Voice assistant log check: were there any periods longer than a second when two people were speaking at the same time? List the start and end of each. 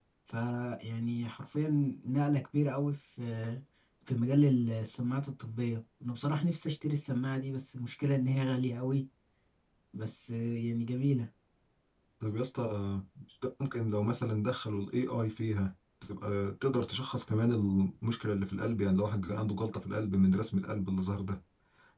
none

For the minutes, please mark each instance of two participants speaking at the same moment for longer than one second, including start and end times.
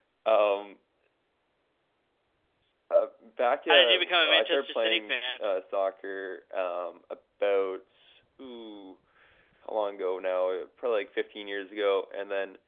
3.7-5.1

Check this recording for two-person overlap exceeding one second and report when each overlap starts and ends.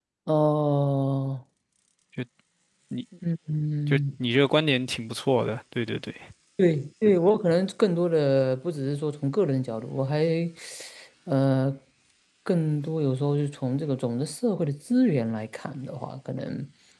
none

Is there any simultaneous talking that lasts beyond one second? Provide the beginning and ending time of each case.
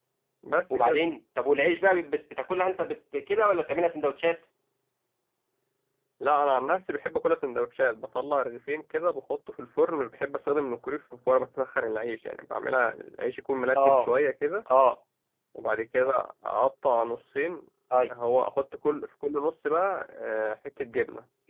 none

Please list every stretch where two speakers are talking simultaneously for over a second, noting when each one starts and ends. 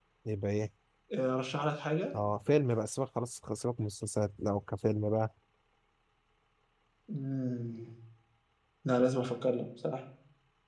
none

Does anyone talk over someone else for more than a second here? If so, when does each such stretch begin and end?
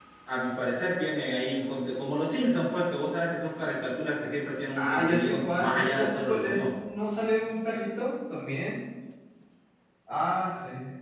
4.8-6.7

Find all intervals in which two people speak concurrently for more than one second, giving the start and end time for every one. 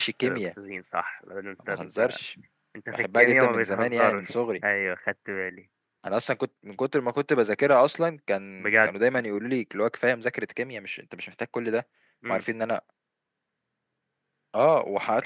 2.9-4.3

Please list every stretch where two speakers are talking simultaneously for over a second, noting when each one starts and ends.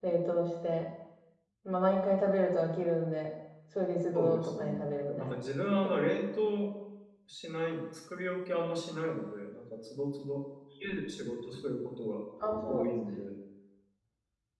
4.2-5.3

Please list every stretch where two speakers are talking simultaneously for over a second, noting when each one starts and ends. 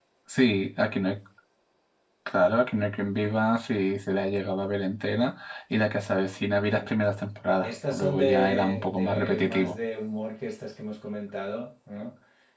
7.6-9.7

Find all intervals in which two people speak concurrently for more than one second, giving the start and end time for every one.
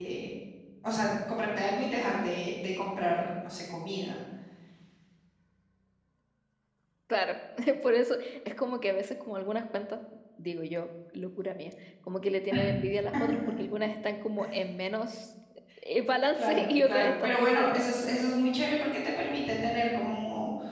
16.4-17.8

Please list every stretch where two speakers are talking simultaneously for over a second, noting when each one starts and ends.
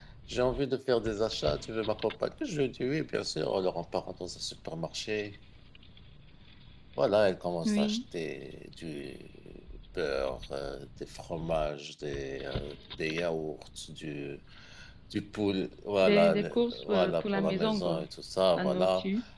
16.0-18.1

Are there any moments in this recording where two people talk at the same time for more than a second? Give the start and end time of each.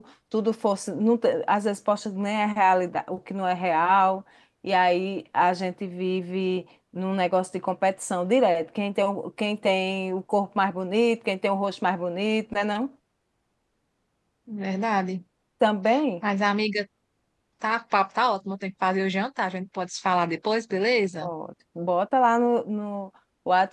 none

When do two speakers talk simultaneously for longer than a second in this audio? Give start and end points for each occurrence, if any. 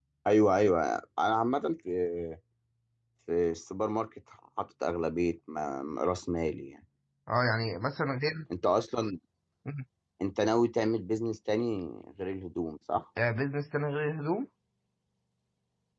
none

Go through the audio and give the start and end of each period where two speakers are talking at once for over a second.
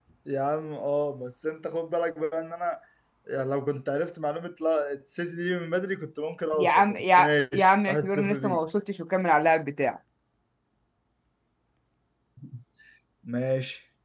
6.6-8.6

